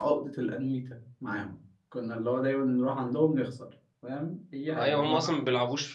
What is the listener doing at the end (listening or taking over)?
taking over